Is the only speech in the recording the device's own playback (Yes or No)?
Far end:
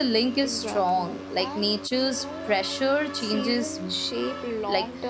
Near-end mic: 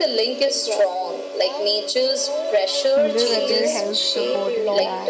No